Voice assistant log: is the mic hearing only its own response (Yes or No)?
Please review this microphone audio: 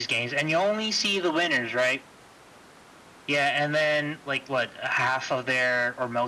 Yes